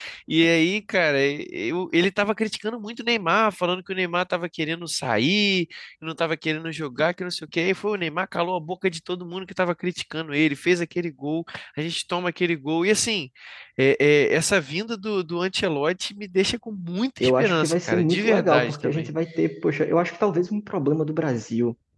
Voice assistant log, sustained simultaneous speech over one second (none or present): present